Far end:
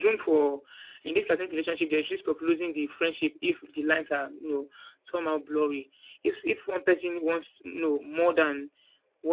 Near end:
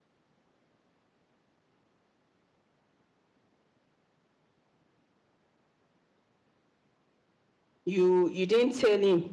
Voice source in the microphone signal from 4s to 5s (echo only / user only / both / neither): neither